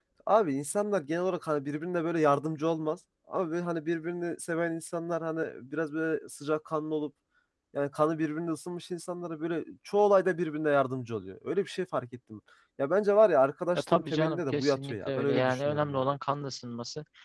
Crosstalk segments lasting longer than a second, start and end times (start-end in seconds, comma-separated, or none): 13.8-16.0